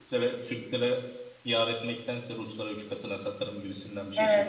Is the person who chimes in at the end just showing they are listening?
No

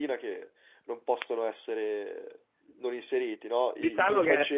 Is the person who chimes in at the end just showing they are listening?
No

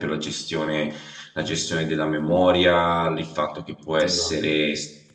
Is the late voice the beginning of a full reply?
No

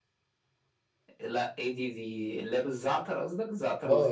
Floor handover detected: Yes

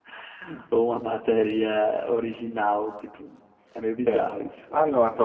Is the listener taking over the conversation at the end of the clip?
Yes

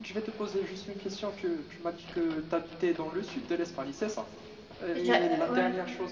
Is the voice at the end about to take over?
No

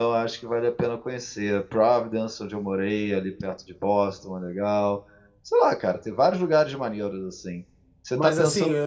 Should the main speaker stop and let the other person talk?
Yes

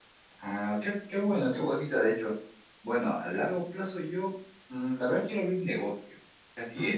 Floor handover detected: No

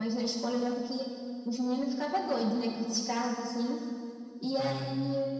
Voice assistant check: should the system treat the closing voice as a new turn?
No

